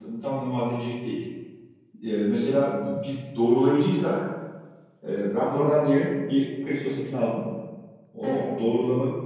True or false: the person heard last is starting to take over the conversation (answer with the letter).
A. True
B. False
B